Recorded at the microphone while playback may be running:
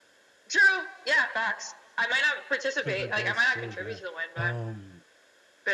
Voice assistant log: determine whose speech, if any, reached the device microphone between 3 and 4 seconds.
both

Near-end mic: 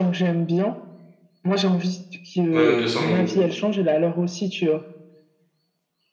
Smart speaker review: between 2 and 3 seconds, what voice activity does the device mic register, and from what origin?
both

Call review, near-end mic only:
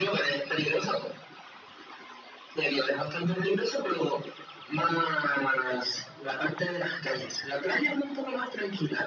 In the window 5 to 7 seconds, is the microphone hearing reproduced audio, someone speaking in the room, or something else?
echo only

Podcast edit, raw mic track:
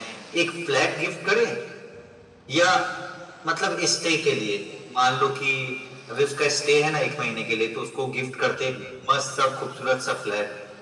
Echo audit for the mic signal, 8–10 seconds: echo only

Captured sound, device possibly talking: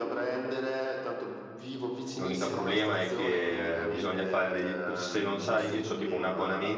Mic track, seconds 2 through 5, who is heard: both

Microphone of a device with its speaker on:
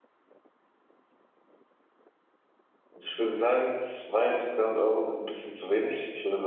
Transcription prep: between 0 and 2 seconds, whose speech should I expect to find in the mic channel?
neither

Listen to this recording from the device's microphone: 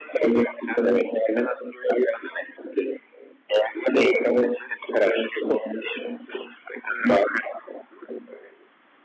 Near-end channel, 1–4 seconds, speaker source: echo only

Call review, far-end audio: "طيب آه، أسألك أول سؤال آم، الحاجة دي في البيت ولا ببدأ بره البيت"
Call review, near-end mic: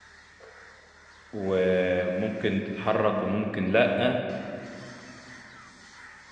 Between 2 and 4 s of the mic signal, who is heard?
user only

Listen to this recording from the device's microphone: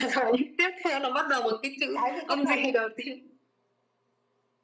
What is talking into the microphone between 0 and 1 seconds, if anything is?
echo only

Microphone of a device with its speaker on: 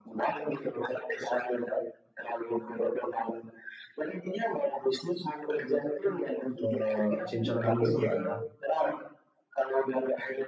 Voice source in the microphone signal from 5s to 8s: both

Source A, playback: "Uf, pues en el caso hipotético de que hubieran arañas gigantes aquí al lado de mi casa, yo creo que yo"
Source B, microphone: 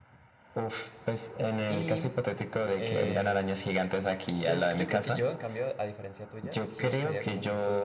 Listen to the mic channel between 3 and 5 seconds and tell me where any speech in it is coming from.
both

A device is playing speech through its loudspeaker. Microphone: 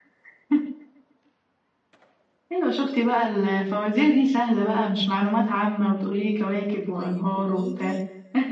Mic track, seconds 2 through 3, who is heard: echo only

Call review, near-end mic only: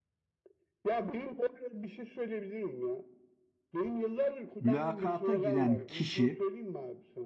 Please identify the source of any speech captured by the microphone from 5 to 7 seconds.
both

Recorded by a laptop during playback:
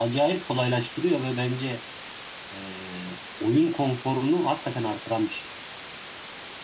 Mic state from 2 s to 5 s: user only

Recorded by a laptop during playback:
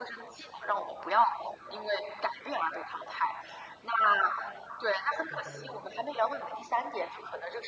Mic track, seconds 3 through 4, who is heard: echo only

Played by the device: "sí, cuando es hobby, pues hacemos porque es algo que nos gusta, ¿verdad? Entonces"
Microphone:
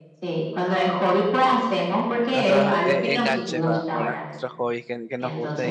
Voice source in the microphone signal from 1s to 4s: both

